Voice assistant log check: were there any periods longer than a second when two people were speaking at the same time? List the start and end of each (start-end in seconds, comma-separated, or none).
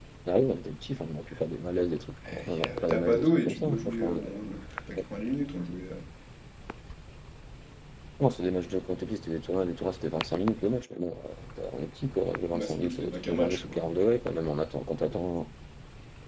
2.4-4.3, 12.5-13.8